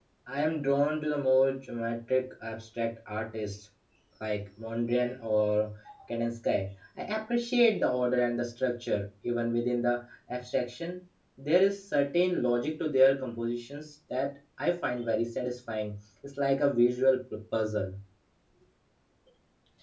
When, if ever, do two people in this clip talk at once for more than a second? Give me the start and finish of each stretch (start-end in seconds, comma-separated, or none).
none